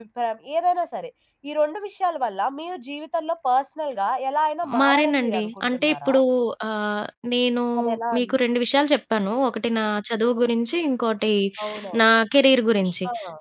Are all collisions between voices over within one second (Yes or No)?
No